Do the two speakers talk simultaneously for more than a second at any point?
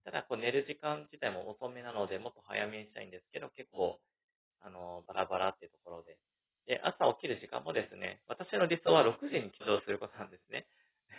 No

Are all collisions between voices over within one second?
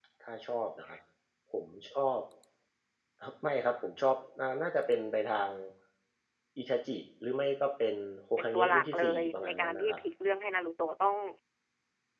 No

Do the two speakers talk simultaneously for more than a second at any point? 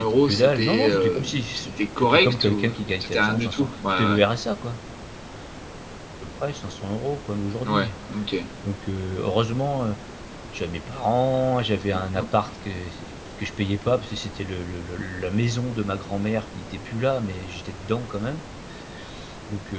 Yes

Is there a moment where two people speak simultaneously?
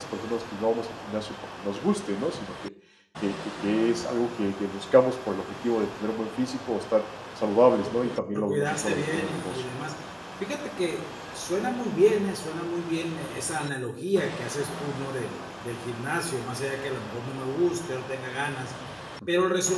Yes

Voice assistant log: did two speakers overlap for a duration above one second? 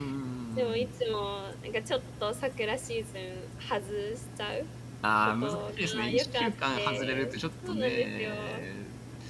Yes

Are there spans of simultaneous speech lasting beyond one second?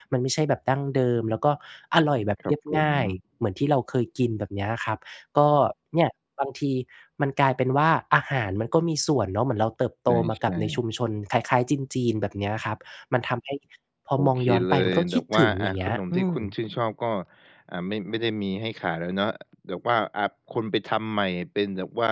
Yes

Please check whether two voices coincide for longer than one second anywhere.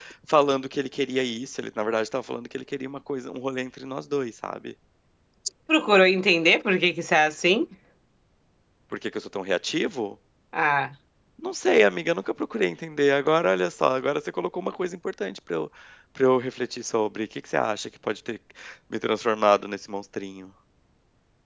No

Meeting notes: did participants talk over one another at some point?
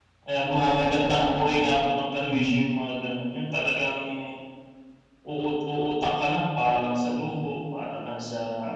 Yes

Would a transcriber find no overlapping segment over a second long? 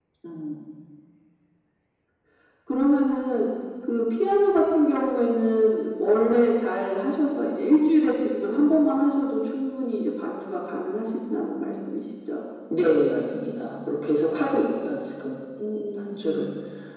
Yes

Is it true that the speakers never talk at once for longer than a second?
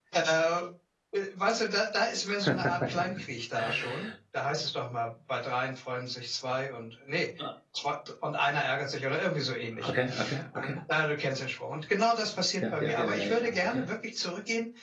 No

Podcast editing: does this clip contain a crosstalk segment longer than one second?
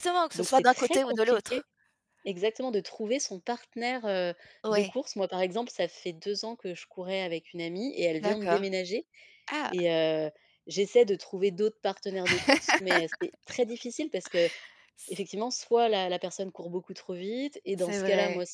Yes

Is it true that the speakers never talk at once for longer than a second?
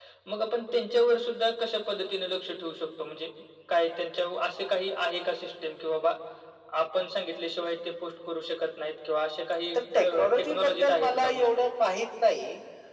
No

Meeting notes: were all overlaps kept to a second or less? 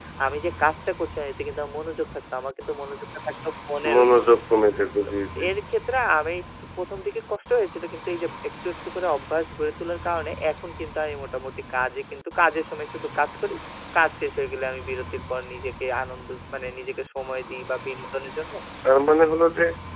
Yes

